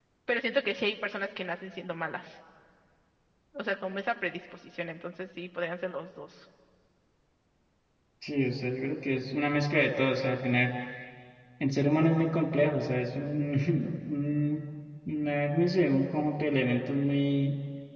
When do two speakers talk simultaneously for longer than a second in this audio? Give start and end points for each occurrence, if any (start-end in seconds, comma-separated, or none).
none